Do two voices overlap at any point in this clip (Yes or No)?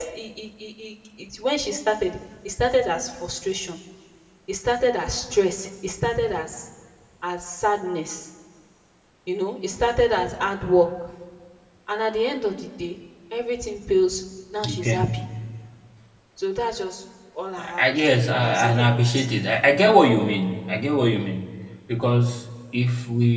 Yes